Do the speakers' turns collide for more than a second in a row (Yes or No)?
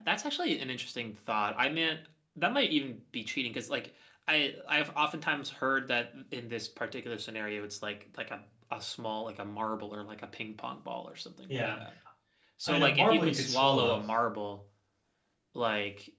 Yes